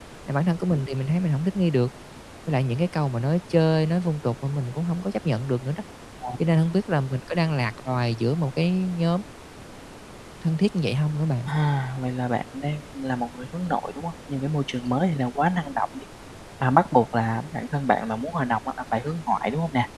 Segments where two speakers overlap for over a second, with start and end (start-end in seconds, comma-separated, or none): none